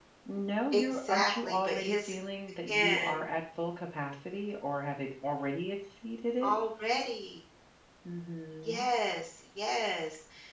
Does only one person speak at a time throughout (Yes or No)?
No